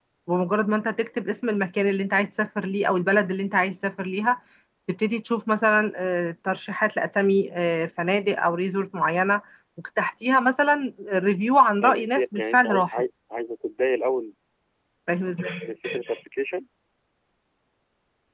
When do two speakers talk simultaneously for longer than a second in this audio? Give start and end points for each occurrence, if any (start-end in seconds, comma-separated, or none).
11.8-13.0